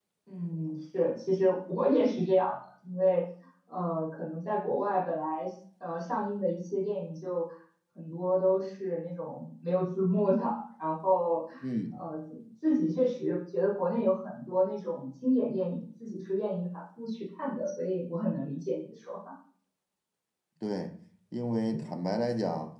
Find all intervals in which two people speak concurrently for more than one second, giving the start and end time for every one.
none

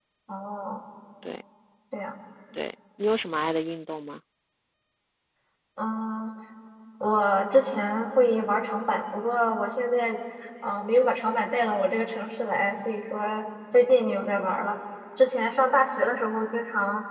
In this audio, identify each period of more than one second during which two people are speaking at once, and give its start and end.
none

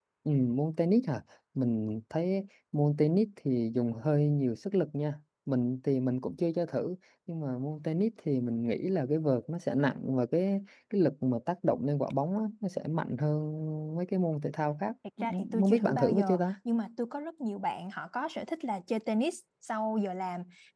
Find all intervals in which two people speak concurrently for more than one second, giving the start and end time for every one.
15.2-16.4

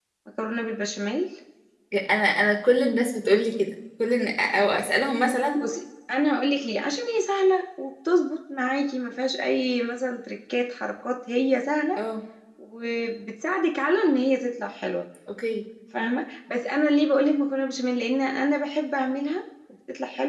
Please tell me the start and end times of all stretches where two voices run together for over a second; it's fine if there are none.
none

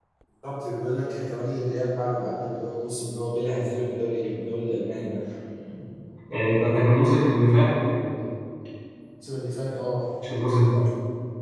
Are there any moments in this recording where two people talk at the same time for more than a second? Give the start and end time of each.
none

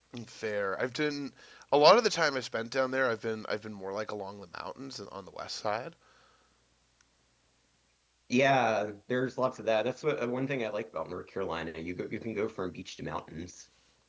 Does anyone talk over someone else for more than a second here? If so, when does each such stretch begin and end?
none

